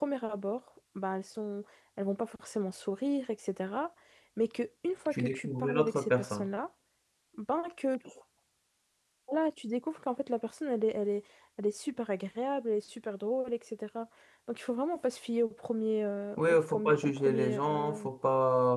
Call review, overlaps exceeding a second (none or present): present